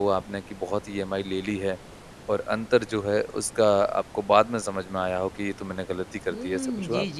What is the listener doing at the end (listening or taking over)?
taking over